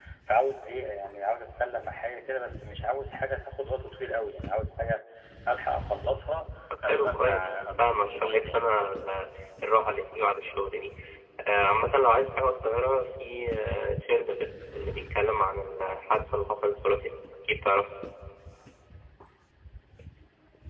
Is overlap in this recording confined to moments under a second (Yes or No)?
No